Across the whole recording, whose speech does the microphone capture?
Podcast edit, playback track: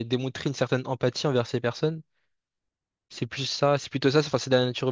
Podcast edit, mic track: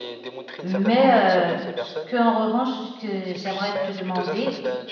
both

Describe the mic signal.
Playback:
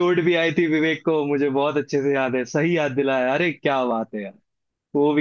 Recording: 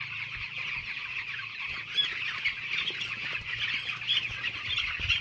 neither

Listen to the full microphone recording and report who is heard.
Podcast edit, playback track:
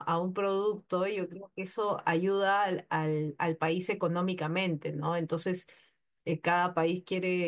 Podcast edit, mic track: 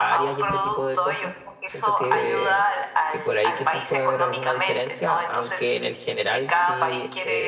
both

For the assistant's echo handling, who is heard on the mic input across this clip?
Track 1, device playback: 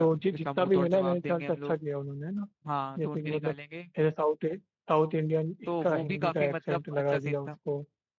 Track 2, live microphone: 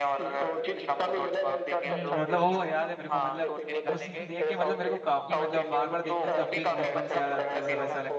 both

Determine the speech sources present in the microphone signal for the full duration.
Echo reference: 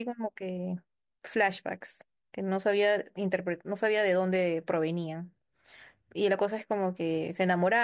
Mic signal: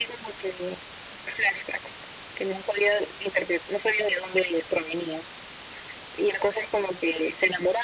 echo only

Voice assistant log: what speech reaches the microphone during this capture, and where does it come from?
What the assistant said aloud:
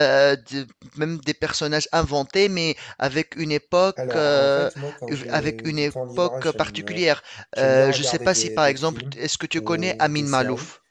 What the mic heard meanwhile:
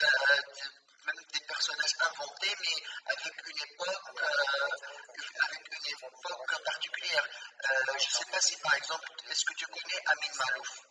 echo only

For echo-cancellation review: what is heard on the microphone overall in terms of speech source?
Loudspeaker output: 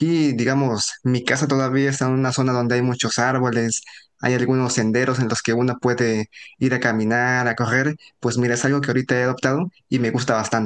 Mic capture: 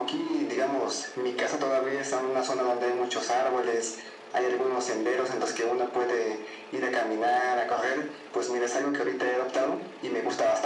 echo only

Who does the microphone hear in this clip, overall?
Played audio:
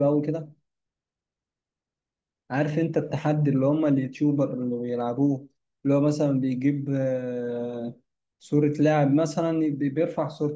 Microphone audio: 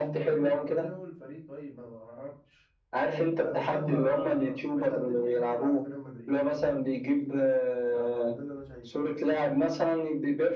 both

